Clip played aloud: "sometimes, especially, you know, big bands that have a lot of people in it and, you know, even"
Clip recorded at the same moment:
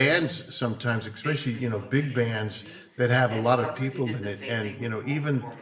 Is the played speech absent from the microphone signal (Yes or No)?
No